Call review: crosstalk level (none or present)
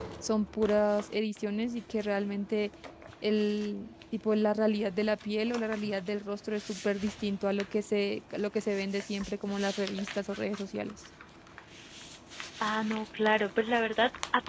none